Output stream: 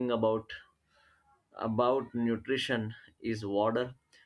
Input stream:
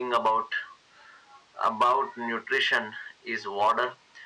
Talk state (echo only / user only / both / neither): echo only